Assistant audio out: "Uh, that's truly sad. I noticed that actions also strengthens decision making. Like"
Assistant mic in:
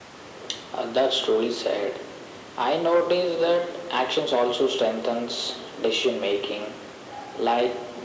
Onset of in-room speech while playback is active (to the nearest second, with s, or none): none